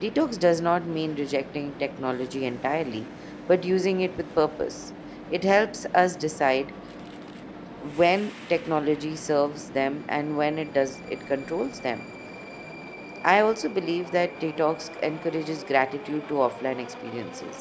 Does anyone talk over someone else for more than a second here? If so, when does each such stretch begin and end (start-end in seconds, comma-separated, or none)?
none